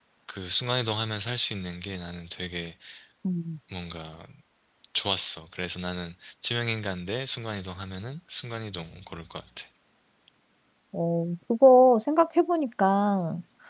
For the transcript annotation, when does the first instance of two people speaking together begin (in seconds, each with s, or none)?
none